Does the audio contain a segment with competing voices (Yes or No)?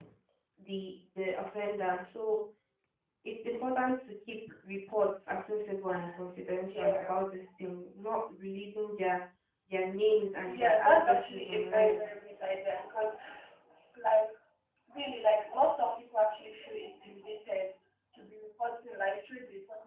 Yes